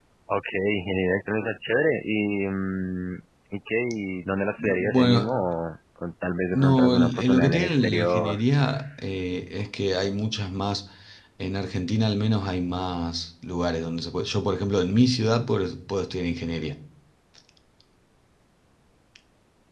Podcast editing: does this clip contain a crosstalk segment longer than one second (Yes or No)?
Yes